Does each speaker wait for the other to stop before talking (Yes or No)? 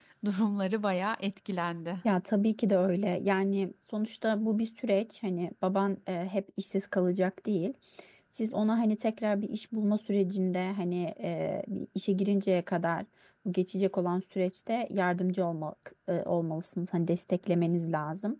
Yes